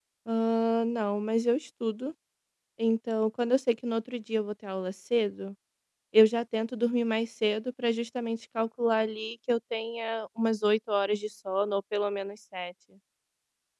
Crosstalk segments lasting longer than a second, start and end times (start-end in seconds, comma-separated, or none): none